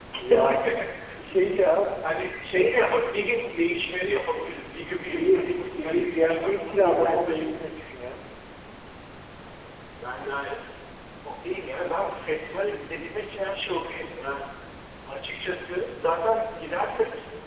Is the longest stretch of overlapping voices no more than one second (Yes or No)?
No